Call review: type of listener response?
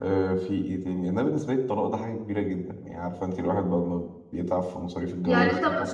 taking over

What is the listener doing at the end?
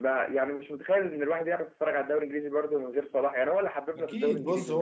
taking over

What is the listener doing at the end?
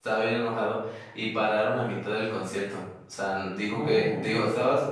listening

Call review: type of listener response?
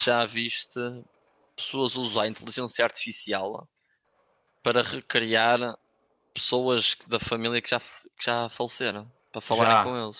taking over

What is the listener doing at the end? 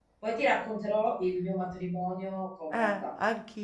taking over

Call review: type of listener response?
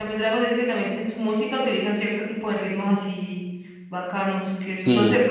listening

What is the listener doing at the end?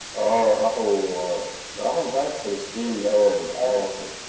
taking over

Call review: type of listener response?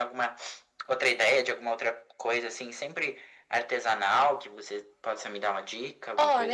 taking over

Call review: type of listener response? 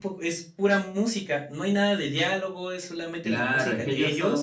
taking over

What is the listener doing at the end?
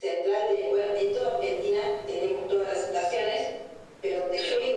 listening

